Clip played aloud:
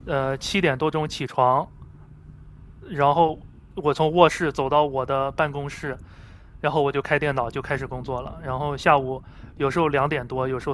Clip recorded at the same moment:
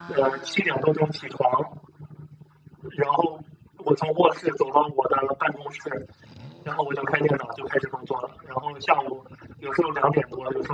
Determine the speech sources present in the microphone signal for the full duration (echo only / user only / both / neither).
echo only